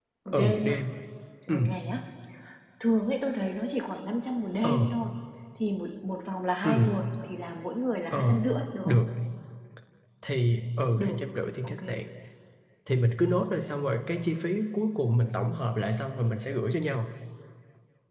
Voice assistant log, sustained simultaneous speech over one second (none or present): none